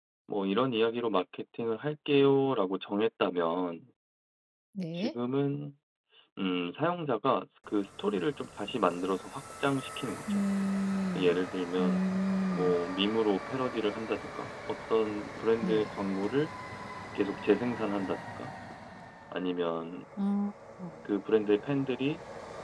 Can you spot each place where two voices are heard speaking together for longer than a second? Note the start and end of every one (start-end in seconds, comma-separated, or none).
none